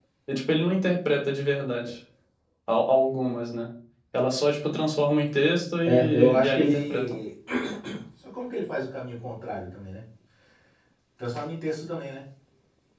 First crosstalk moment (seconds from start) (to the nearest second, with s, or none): 6 s